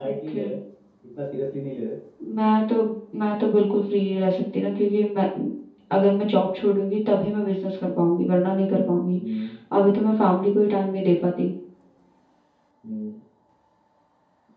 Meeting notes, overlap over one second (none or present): none